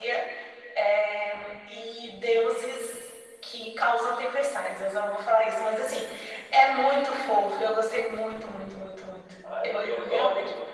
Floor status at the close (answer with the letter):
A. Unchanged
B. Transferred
B